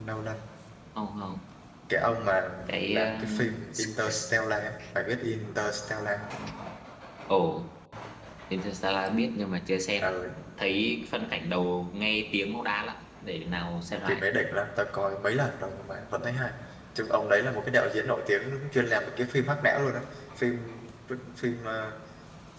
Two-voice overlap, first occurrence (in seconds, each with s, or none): 2.9 s